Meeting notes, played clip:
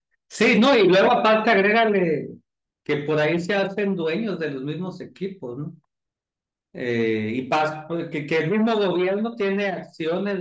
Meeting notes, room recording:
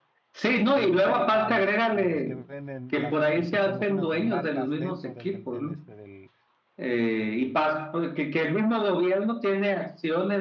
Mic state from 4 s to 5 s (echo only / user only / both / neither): both